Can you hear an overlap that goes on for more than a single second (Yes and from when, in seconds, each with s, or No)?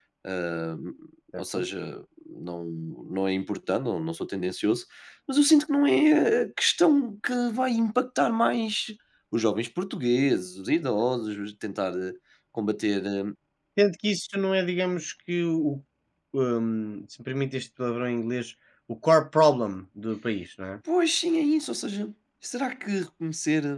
No